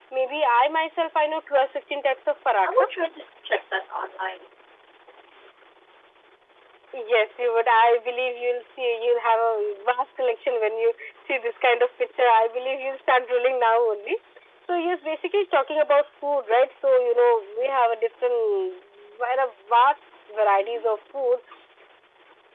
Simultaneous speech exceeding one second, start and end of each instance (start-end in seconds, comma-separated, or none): none